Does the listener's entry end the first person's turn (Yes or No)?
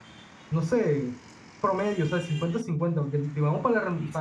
No